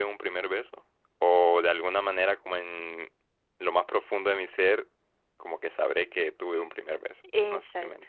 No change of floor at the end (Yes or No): No